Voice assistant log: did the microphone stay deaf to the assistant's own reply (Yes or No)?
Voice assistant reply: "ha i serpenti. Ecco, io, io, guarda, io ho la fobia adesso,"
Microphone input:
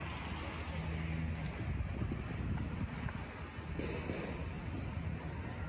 Yes